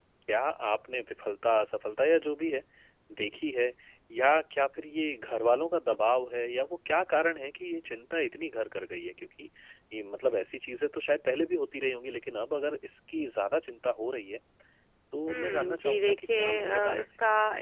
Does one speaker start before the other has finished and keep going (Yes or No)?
Yes